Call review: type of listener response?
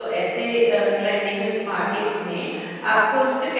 listening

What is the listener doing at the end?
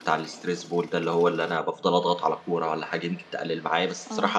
listening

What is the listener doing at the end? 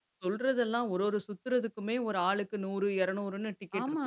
taking over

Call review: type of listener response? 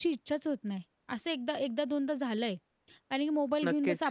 listening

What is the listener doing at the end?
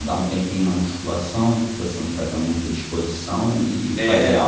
taking over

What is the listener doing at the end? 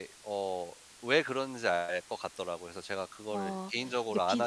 taking over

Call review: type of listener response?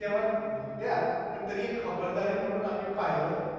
listening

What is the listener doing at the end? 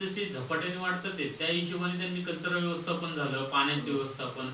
listening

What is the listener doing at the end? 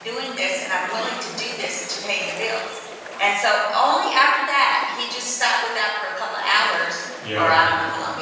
listening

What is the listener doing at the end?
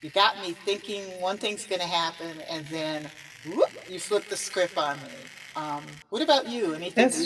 taking over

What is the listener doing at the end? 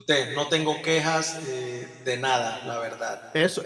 taking over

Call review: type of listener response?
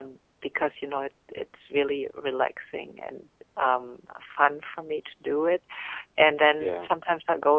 listening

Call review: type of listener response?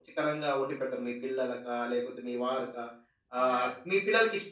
listening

